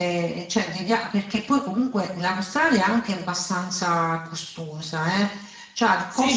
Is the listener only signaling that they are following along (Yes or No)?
Yes